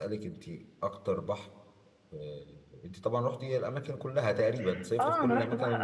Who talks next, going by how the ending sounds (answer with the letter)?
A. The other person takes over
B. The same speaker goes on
A